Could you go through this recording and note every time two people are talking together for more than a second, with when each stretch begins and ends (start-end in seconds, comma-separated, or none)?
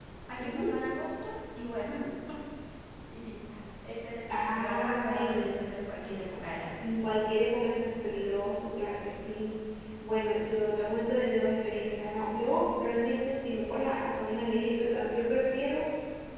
4.3-5.6